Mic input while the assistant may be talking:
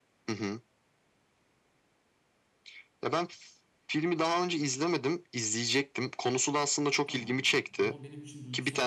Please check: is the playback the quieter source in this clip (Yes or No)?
No